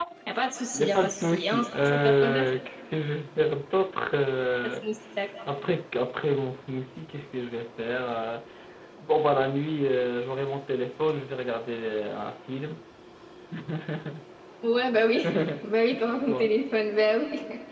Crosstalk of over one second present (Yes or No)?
Yes